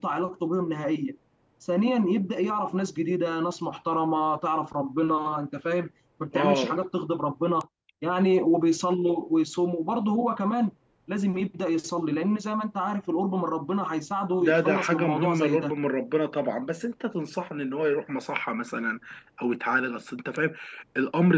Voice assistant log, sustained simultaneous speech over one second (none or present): present